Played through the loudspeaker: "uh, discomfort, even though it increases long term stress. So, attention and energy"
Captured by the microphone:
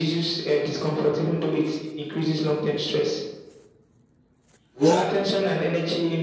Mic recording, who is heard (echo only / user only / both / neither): both